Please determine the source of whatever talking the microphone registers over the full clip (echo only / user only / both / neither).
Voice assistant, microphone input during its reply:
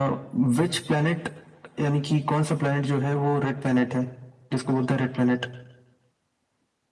echo only